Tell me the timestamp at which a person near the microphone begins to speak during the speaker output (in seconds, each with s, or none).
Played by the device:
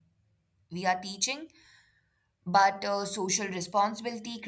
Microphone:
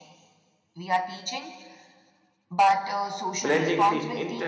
3.4 s